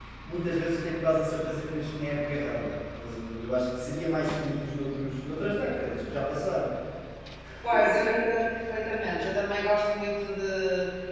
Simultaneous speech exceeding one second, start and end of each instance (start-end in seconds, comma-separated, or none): none